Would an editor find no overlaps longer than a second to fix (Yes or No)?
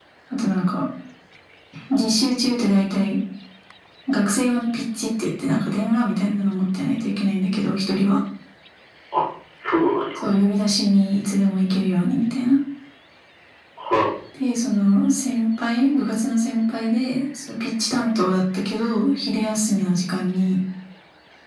Yes